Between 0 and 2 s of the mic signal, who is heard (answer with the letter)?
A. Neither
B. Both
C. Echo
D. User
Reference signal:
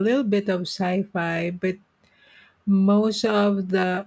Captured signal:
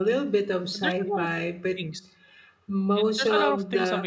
B